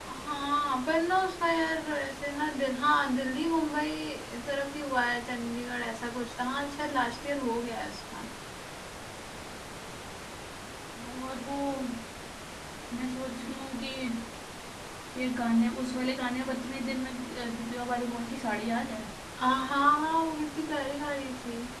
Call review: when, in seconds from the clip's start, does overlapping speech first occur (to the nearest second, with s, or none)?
none